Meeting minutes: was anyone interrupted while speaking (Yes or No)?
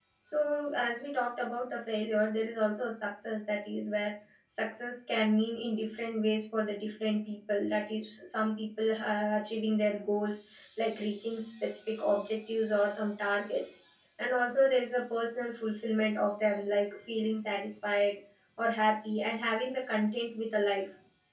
No